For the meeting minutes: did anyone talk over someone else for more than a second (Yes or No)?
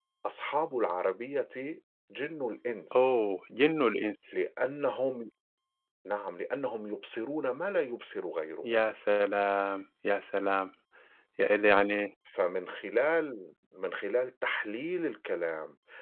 No